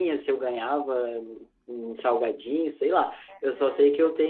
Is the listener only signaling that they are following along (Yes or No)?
Yes